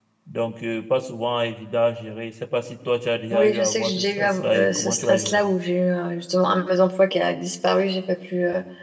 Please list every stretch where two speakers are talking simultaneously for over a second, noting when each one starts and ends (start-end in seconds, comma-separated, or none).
3.3-5.5